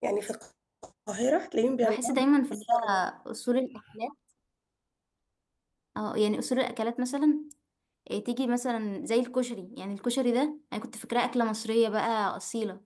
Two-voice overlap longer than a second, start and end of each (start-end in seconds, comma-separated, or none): none